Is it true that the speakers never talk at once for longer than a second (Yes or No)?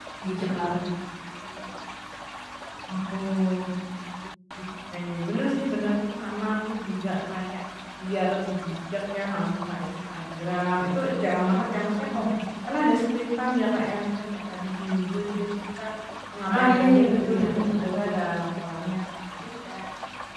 No